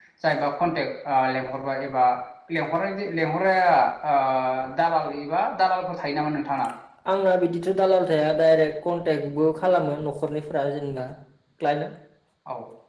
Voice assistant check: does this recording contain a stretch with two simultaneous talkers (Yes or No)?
No